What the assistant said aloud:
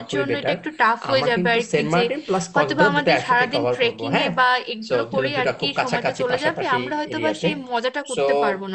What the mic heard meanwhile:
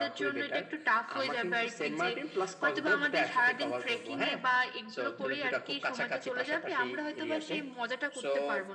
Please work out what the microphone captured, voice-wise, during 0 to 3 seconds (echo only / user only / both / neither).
echo only